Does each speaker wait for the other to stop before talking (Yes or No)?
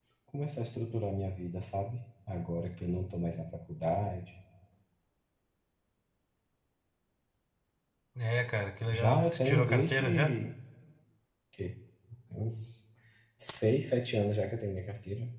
No